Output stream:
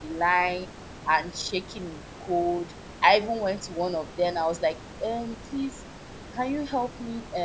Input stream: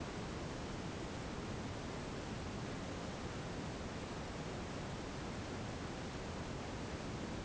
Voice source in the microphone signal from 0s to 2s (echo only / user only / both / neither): neither